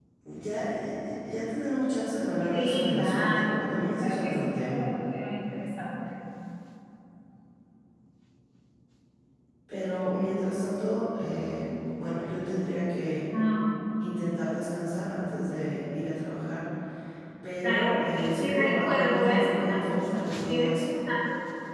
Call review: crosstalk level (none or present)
present